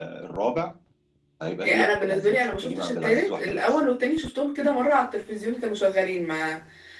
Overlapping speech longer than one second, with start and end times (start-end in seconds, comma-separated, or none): 1.6-3.6